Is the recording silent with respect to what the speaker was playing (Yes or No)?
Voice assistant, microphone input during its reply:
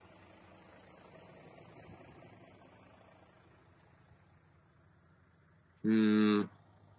Yes